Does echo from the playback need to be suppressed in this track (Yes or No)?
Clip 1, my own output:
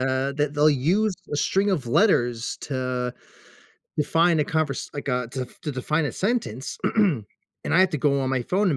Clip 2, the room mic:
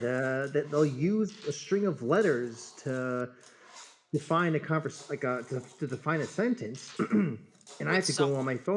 Yes